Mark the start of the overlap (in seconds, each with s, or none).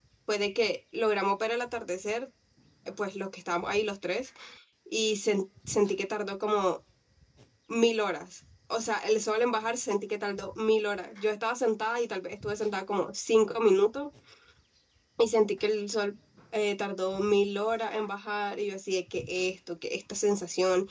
none